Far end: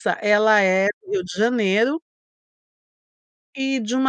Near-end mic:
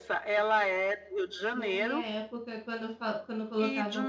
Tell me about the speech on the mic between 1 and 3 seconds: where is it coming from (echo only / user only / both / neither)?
both